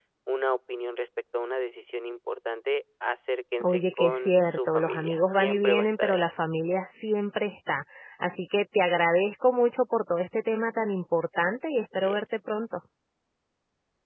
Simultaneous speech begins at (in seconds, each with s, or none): 3.6 s